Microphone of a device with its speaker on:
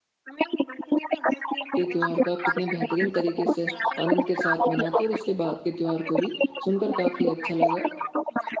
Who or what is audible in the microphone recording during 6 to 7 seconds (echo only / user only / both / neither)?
both